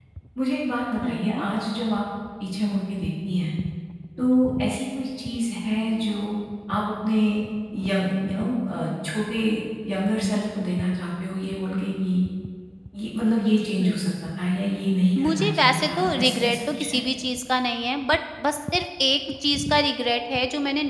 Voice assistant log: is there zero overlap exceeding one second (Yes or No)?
No